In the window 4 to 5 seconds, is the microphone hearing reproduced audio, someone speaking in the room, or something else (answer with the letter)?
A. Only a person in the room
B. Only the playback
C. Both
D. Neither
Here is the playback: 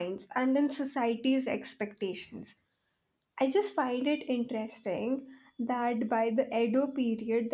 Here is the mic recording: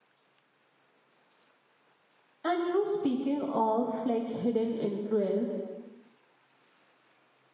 A